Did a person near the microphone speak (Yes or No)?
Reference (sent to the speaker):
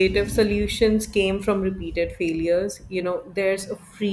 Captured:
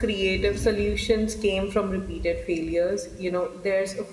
No